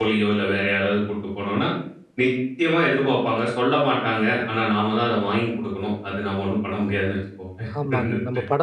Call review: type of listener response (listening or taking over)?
taking over